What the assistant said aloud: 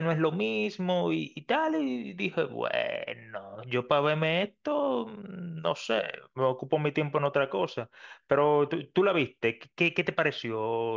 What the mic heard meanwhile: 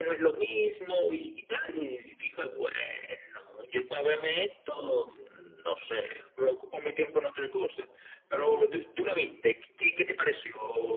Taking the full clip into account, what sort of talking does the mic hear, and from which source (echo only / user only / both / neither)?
echo only